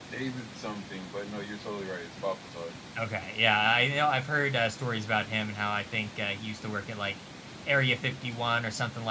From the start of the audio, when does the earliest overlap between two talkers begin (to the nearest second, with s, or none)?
none